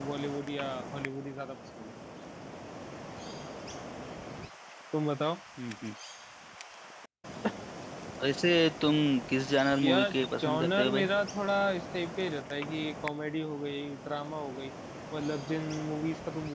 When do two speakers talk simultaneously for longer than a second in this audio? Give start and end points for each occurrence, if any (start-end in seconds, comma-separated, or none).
9.8-11.0